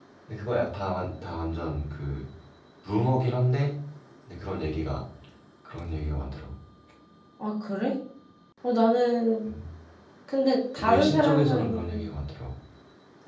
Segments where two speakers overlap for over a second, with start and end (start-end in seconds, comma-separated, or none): 10.8-12.1